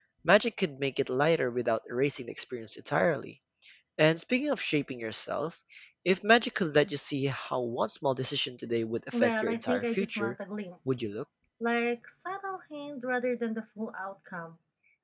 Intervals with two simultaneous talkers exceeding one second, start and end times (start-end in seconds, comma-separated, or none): 9.1-10.3